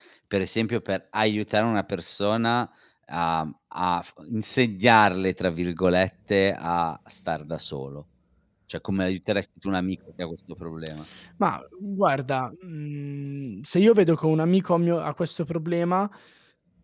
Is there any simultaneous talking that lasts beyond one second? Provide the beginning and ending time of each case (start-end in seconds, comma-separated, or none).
none